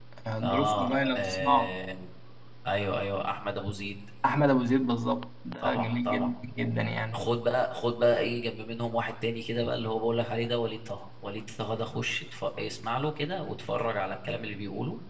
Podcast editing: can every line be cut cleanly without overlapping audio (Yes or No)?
No